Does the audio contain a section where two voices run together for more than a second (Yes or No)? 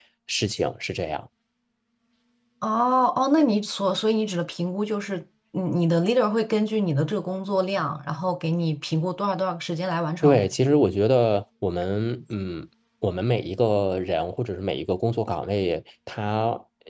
No